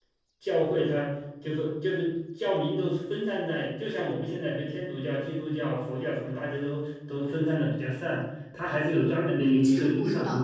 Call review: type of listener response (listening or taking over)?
taking over